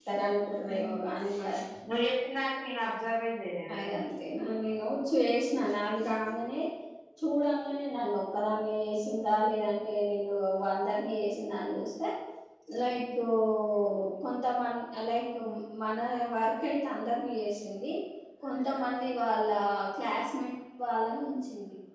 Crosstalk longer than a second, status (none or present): none